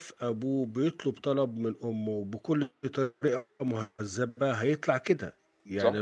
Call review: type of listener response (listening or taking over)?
listening